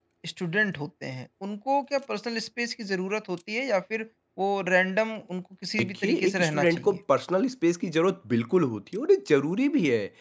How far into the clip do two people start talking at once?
5.8 s

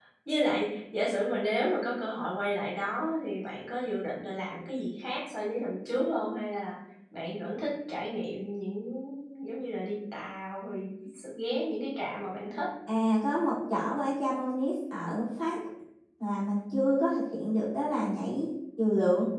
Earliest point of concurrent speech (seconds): none

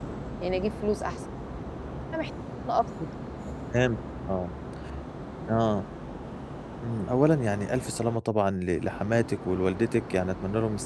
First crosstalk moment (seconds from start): none

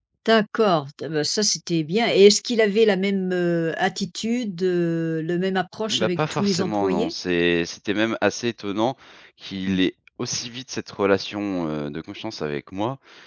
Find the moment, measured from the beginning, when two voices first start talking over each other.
5.9 s

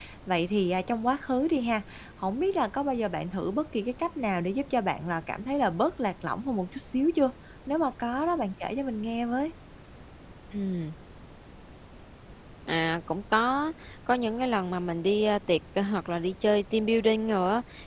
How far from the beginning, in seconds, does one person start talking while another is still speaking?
none

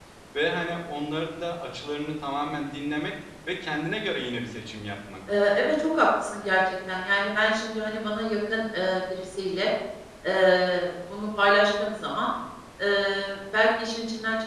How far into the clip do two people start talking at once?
none

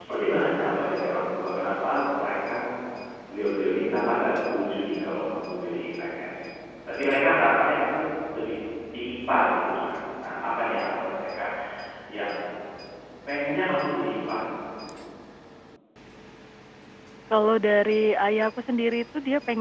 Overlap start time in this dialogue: none

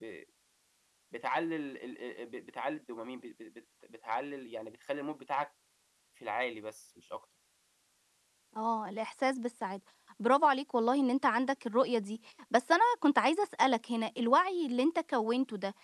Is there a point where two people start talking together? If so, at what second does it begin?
none

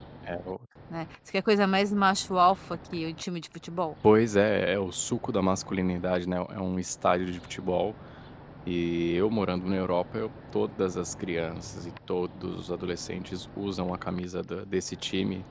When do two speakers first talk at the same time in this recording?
none

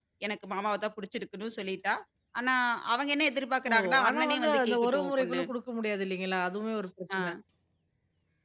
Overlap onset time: 3.7 s

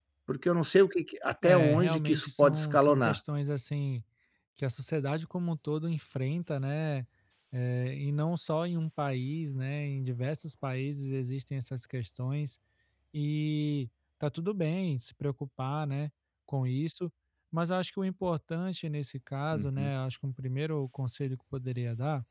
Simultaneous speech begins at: 1.4 s

